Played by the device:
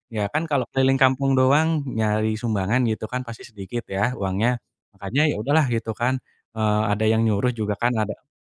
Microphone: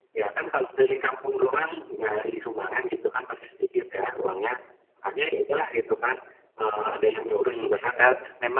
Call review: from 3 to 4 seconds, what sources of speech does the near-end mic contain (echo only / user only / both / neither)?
echo only